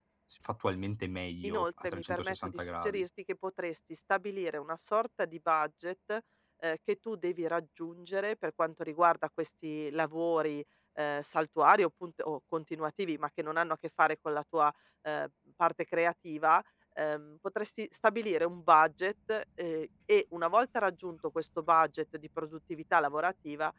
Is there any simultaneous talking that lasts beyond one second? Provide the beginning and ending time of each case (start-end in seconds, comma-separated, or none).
1.4-3.0